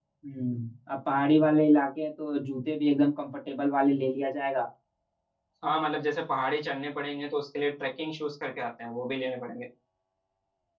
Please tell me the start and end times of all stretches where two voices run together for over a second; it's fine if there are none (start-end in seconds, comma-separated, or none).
none